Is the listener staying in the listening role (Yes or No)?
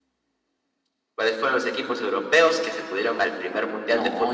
No